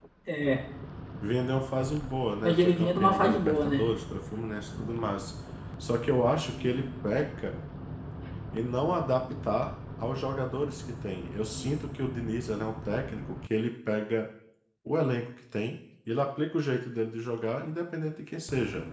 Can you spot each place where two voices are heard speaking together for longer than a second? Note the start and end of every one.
2.4-3.8

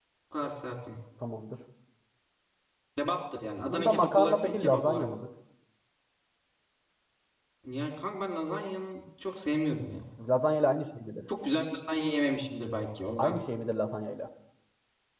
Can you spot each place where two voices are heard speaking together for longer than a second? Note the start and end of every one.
3.7-5.1

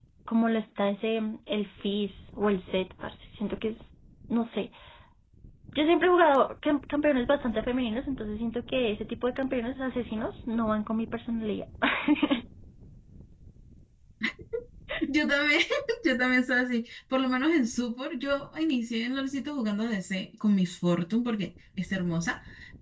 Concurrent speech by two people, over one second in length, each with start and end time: none

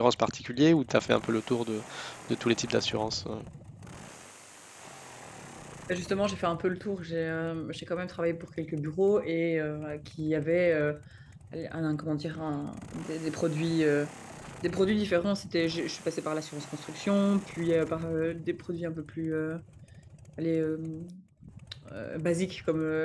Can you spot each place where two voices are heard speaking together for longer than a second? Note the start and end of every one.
none

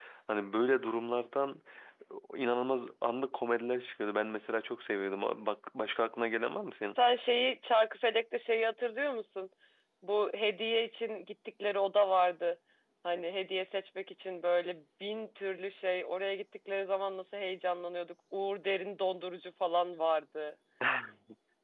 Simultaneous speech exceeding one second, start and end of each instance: none

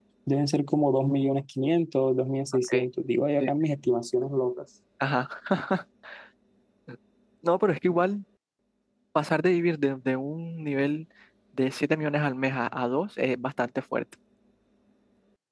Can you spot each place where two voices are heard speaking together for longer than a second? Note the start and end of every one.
none

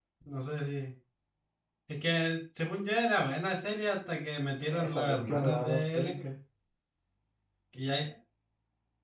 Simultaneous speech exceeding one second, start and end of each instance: 4.7-6.1

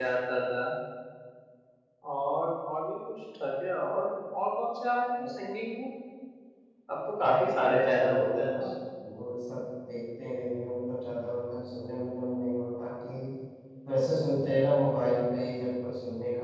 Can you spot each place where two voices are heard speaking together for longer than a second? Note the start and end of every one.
7.2-8.7

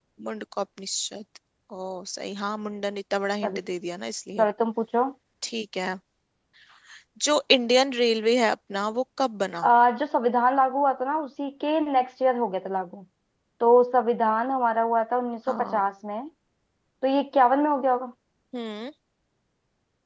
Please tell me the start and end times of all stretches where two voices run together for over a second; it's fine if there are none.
none

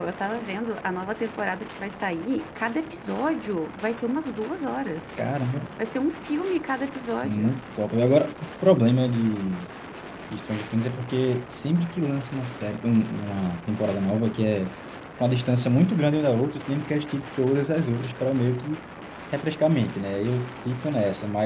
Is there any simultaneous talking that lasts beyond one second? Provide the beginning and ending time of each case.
none

